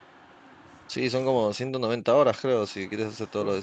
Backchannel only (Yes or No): No